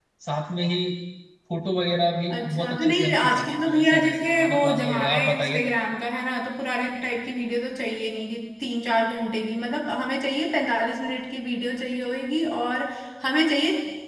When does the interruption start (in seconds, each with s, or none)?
2.3 s